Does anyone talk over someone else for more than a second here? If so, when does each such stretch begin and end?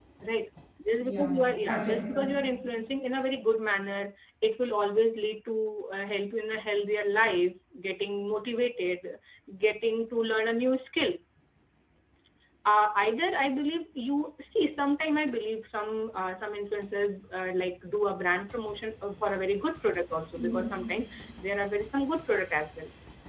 1.0-2.2

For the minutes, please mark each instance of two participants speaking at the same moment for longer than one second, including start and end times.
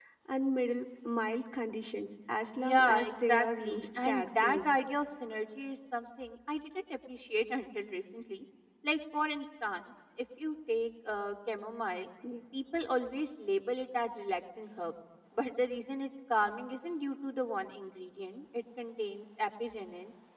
2.6-4.7

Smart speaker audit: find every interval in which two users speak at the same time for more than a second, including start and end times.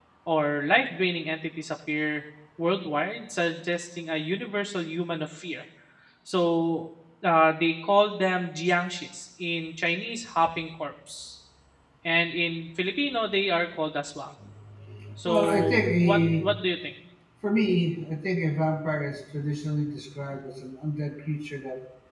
15.2-16.5

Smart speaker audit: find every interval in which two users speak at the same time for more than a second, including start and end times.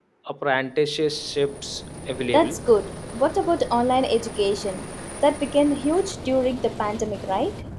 none

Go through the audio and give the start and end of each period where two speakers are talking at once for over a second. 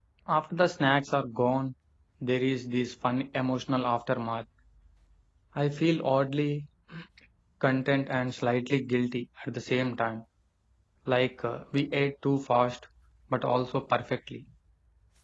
none

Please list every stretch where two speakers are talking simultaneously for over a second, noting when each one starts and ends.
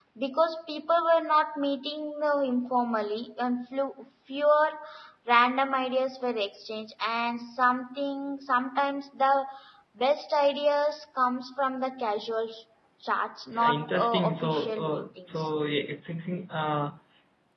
13.6-15.4

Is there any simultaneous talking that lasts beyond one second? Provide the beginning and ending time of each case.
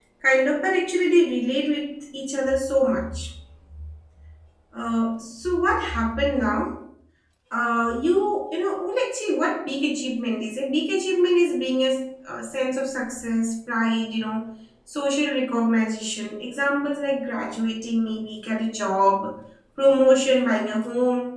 none

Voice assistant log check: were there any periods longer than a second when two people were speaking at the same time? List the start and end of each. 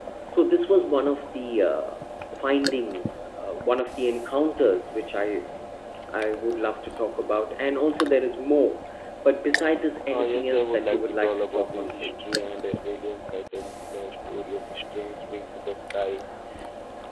10.1-12.2

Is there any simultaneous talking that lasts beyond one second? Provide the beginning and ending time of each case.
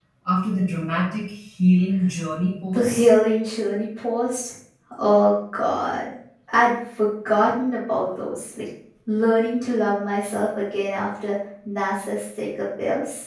none

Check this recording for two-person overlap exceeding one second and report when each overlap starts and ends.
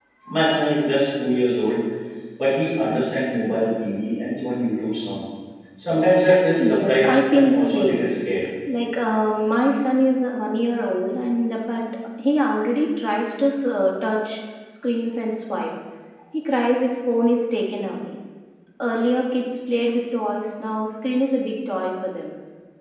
6.7-8.0

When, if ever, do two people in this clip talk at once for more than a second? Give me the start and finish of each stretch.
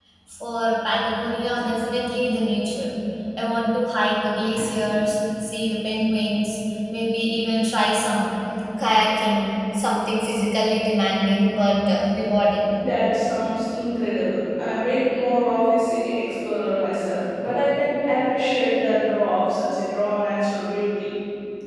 none

